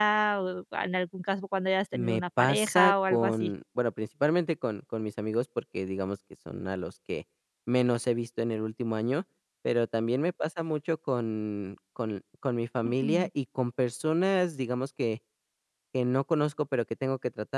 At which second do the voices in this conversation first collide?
1.9 s

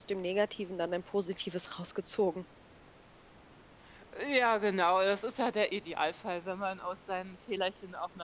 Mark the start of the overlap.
none

